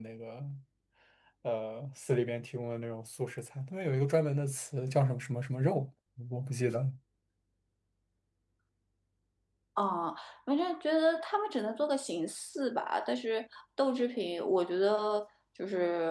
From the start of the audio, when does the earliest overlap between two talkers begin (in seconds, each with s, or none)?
none